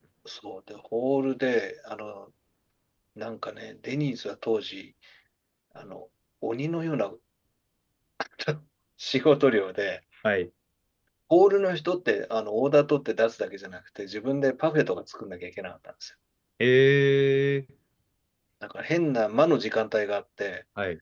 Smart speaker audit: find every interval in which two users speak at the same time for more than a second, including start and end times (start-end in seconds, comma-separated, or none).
none